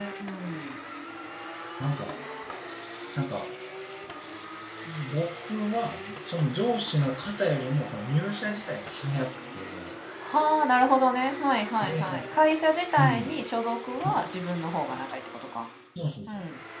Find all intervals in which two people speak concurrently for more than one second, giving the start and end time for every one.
none

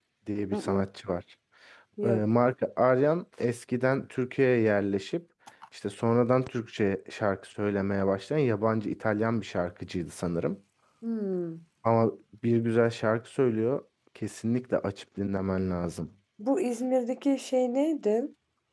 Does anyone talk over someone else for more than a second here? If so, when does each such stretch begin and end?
none

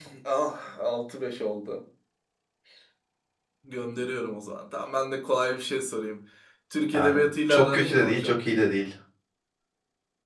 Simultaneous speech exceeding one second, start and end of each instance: 6.9-8.3

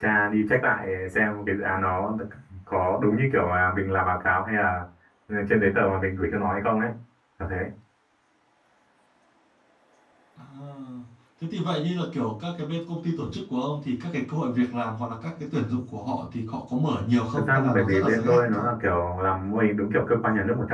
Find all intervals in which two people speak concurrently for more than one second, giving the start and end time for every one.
17.4-18.7

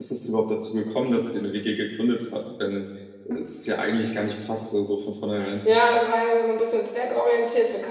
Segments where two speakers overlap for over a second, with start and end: none

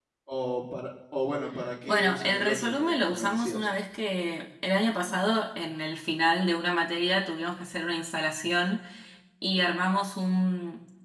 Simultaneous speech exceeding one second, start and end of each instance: 1.8-3.6

